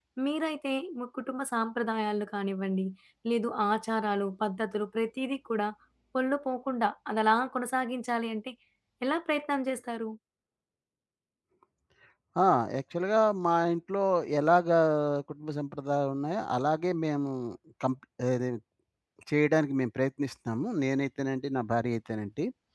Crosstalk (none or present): none